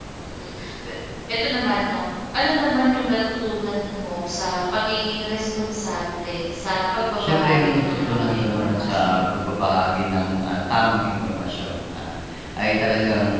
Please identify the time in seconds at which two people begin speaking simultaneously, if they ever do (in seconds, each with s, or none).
7.2 s